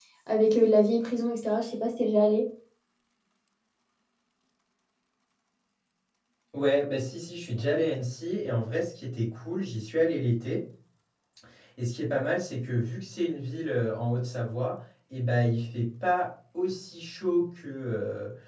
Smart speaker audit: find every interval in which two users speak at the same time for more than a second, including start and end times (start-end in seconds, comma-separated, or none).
none